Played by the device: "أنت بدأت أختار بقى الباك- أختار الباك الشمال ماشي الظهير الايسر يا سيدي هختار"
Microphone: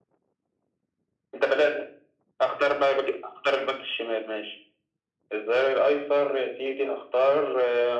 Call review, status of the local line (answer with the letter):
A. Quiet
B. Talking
A